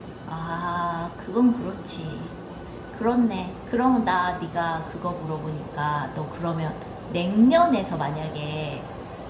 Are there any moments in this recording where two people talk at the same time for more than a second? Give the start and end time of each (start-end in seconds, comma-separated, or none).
none